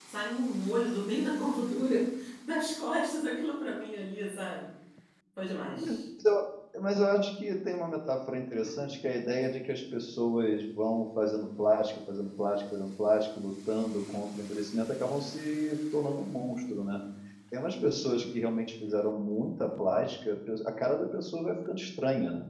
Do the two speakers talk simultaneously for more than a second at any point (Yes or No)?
No